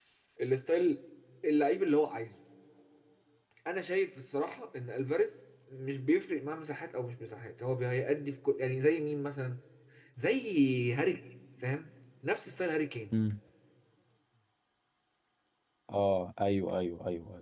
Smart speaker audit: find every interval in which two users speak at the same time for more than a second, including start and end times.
none

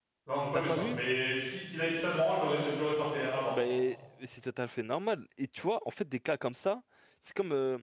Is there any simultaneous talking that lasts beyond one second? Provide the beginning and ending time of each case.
none

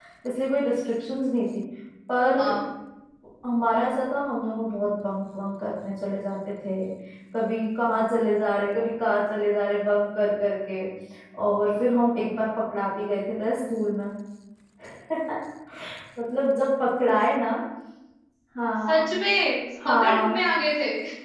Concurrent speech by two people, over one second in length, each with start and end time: none

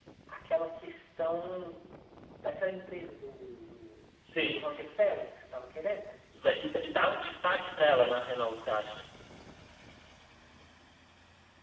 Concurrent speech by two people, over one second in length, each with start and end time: none

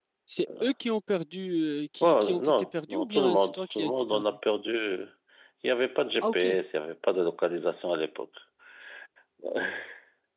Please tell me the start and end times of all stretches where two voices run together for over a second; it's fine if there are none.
2.0-4.2

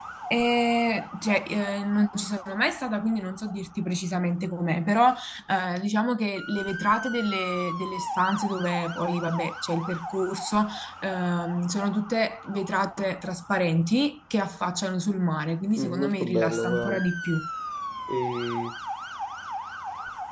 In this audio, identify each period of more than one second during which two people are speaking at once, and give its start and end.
15.8-17.0

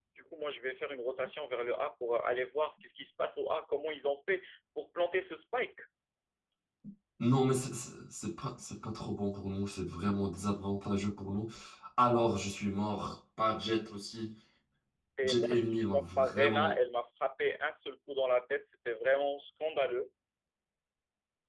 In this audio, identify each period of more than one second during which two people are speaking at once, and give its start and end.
15.2-16.8

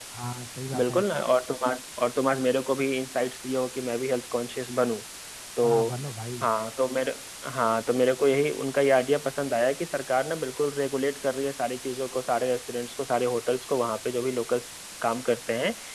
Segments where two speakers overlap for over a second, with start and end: none

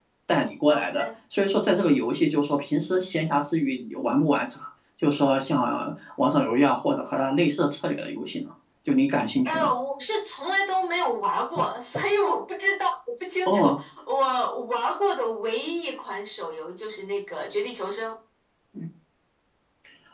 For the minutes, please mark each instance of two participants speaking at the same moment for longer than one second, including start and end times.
none

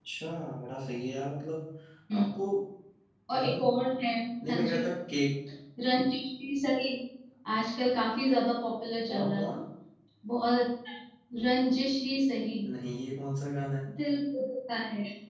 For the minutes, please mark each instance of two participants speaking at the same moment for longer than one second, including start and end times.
none

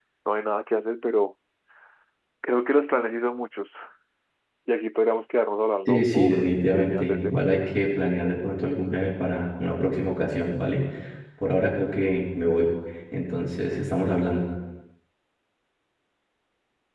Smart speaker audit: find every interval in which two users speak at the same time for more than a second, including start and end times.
5.9-7.4

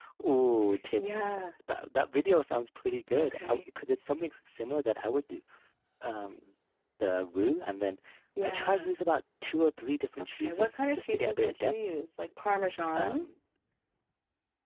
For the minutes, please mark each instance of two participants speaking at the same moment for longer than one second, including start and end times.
10.2-11.7

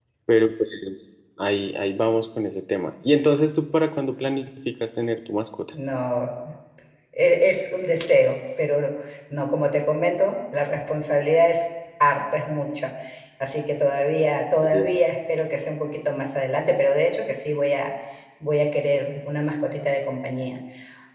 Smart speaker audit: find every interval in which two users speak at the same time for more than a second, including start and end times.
none

